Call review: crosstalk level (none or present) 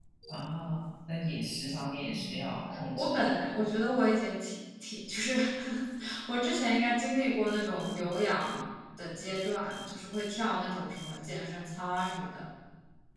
present